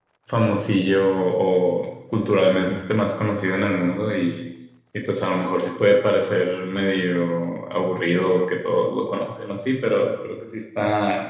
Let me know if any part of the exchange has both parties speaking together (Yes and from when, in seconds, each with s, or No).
No